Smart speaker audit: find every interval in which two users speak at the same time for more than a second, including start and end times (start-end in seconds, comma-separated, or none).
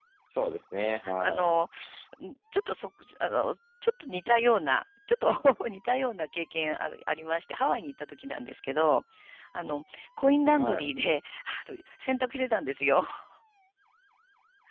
none